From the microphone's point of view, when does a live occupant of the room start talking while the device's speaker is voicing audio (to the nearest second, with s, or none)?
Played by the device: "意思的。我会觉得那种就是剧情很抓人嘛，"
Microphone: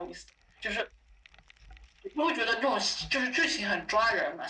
none